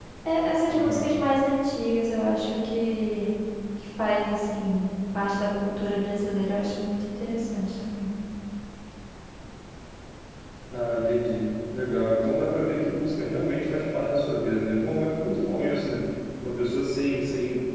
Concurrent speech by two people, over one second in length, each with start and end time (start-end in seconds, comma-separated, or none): none